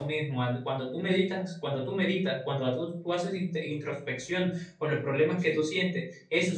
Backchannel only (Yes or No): Yes